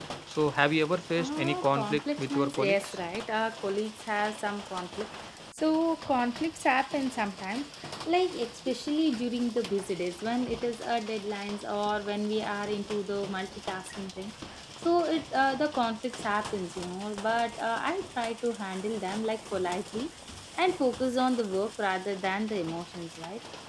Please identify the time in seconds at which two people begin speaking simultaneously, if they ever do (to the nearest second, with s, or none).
1 s